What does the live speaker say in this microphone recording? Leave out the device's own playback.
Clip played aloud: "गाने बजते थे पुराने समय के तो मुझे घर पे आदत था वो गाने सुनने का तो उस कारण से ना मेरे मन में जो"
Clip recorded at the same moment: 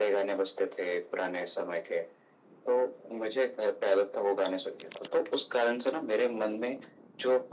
none

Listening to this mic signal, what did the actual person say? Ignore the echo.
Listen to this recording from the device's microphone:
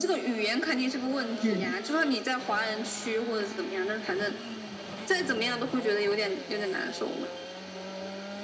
嗯，

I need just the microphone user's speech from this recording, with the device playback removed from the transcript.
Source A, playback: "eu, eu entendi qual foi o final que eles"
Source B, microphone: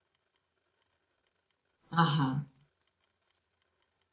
aham,

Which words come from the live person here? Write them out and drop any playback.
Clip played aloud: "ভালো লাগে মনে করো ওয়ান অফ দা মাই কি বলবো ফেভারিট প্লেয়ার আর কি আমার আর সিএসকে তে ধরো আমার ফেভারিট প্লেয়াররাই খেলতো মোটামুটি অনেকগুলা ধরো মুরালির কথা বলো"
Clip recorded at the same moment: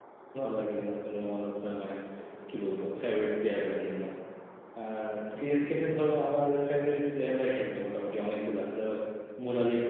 none

